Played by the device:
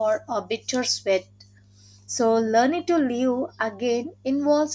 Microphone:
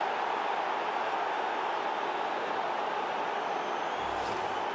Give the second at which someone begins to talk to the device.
none

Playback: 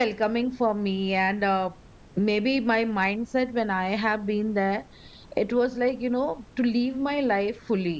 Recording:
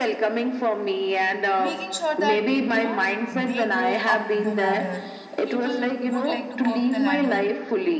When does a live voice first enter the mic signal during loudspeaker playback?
2 s

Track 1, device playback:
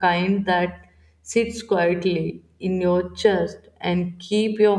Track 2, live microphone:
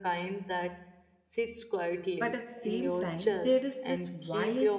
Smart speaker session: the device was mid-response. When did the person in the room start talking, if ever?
2 s

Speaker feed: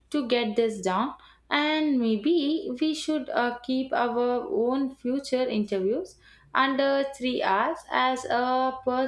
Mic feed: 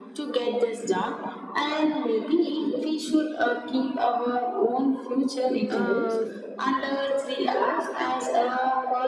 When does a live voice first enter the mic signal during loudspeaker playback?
6 s

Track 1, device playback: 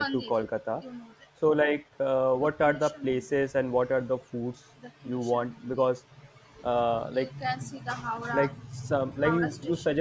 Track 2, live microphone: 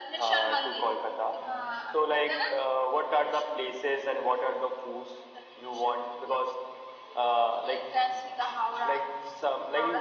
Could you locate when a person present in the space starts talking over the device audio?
1 s

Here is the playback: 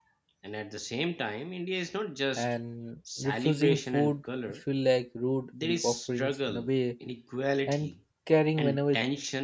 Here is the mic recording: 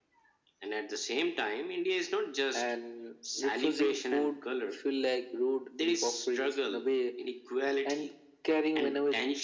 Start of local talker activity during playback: none

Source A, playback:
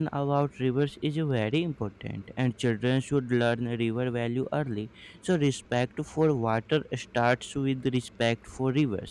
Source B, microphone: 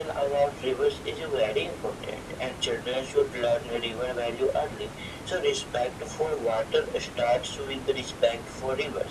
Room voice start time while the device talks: none

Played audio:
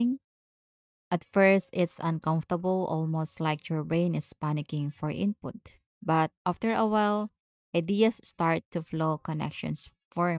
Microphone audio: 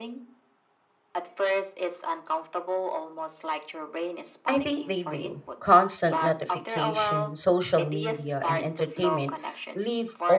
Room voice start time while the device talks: 4 s

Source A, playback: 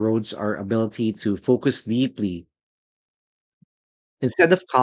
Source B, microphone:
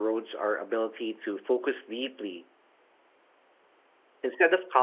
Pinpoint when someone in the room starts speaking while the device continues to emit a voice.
none

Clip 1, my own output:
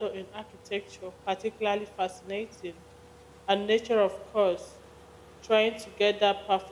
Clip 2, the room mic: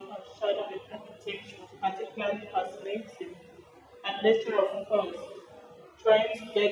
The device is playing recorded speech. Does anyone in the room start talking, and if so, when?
none

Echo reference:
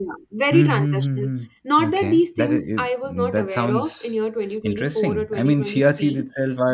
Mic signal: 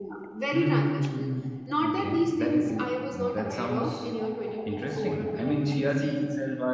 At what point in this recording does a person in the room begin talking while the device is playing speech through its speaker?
none

